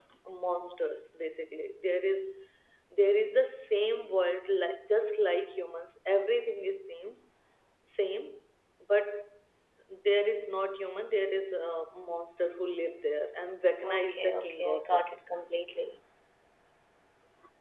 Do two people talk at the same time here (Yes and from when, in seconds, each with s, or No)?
Yes, from 13.8 s